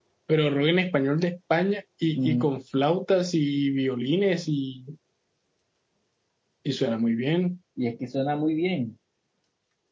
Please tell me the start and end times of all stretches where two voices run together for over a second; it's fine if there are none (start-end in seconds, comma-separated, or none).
none